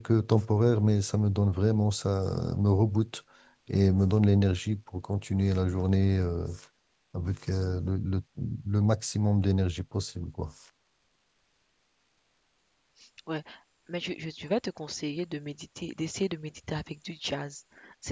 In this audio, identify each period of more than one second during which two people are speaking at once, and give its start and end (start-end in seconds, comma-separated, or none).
none